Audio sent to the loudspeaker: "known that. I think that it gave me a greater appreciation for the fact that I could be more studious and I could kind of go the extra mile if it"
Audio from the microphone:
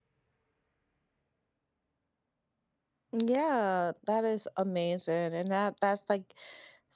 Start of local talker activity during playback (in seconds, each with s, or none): 3.1 s